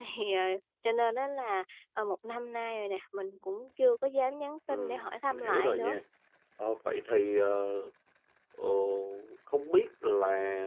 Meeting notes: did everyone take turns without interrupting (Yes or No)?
No